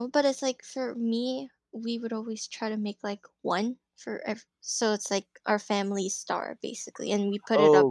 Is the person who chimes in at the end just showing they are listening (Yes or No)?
No